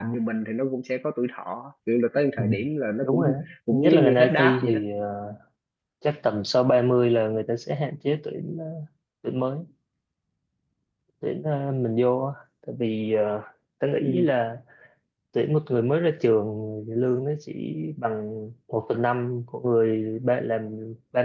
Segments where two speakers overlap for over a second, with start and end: 3.0-4.8

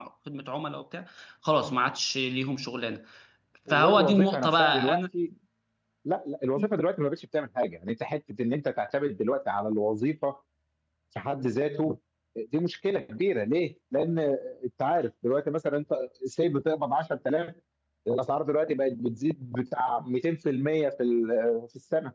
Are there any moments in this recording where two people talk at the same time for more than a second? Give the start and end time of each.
3.7-5.0

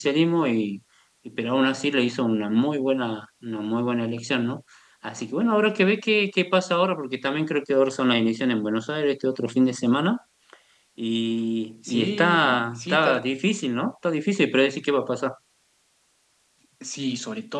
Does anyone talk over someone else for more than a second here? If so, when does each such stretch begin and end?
11.9-13.2

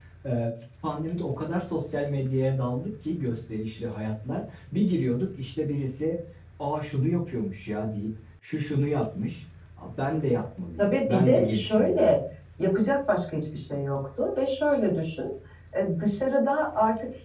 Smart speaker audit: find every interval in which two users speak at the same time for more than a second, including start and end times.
10.8-12.1

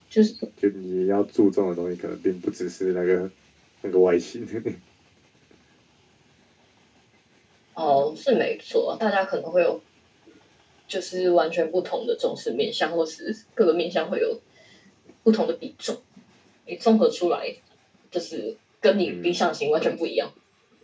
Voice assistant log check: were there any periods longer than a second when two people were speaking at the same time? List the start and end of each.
none

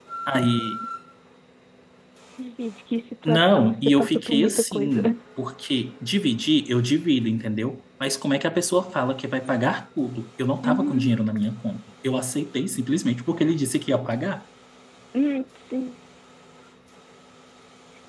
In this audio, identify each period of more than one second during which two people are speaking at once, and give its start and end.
3.2-5.0

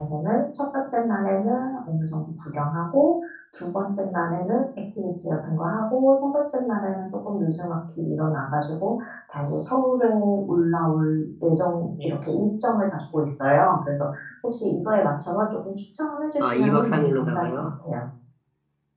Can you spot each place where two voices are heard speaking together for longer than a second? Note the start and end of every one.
16.4-17.7

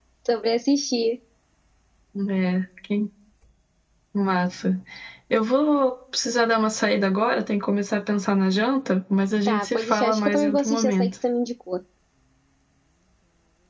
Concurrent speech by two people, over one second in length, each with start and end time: 9.4-11.1

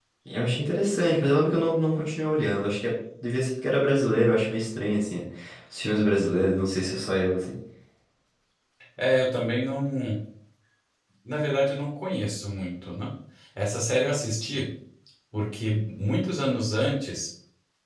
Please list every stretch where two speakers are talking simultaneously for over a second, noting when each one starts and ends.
none

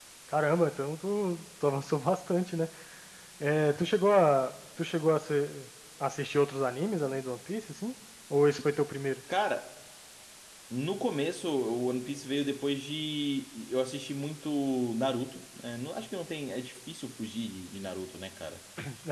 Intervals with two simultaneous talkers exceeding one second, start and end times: none

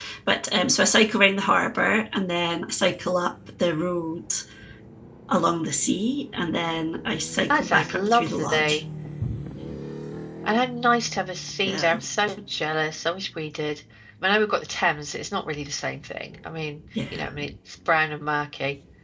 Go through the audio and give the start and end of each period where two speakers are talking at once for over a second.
7.5-8.8

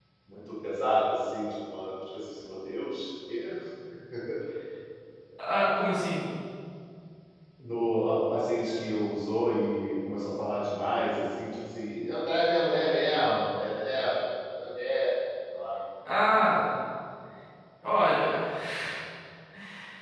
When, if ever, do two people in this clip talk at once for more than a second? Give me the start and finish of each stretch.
none

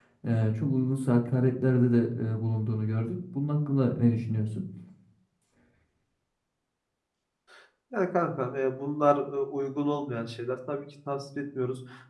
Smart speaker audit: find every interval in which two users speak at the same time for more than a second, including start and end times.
none

